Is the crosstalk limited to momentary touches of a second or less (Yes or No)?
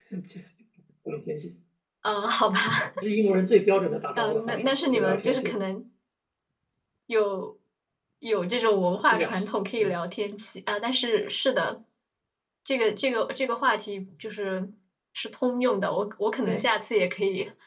No